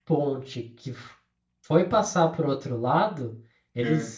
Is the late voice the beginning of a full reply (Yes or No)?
No